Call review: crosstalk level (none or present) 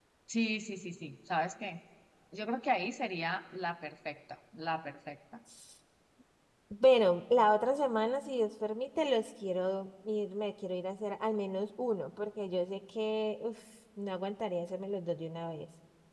none